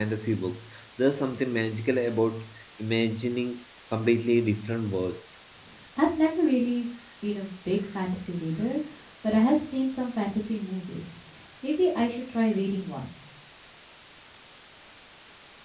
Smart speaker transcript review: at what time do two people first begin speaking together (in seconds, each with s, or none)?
none